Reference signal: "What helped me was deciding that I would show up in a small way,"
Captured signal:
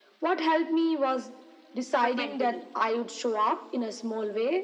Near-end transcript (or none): but mentally.